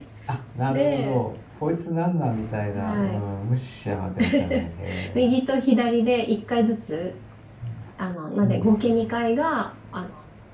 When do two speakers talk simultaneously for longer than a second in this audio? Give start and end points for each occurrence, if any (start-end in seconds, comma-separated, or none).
none